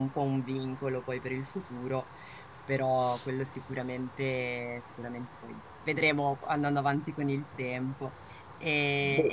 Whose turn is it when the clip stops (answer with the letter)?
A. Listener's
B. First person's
B